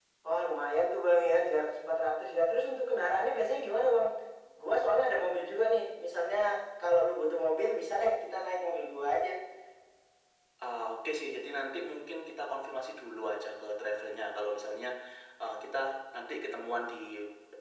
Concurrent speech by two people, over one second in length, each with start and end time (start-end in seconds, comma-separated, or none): none